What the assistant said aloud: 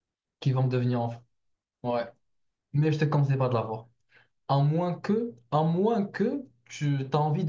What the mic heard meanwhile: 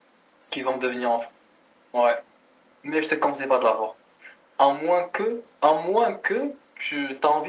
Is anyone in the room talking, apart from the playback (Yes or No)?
No